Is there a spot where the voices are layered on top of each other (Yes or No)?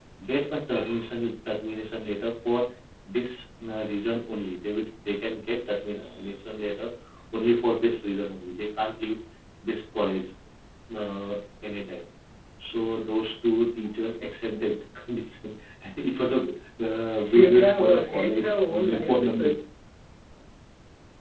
Yes